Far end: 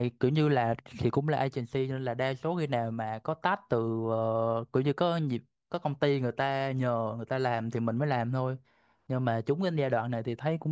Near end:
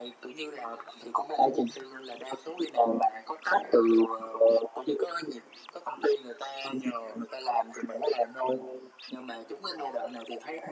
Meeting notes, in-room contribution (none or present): none